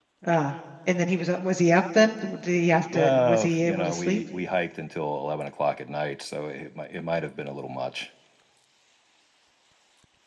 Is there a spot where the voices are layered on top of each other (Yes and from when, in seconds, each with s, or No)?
Yes, from 2.8 s